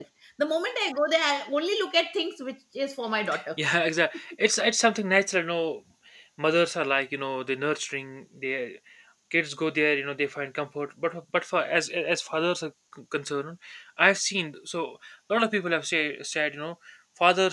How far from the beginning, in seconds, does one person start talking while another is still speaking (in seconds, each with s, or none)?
none